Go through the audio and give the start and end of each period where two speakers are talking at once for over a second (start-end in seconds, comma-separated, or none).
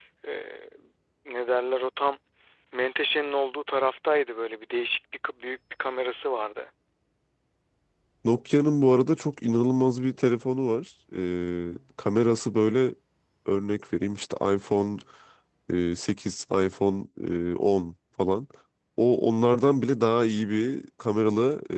none